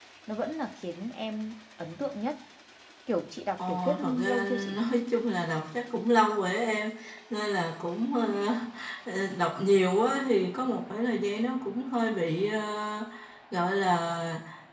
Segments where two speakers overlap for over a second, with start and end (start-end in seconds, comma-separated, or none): 3.6-4.8